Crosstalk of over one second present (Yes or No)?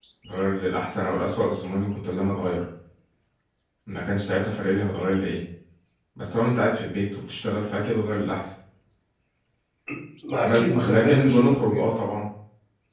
Yes